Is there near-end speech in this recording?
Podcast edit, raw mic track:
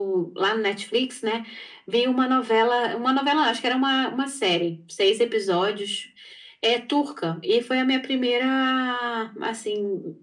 No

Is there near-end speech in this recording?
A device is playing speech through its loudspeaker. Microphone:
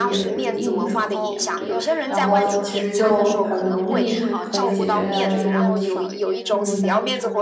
Yes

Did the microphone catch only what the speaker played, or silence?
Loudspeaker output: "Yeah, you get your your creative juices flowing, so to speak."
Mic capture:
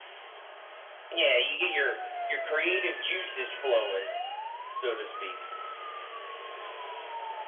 Yes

